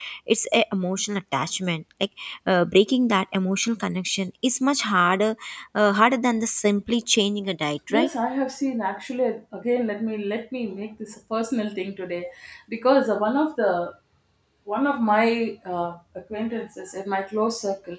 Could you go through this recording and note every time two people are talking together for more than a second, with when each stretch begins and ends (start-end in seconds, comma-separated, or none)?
none